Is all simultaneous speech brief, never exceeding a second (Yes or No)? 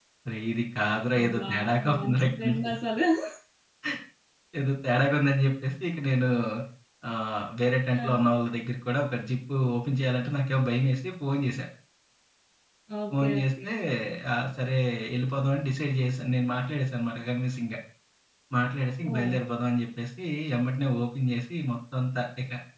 No